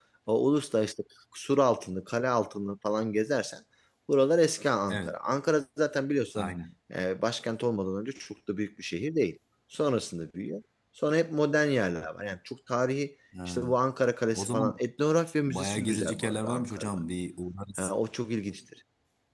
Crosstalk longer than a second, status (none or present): present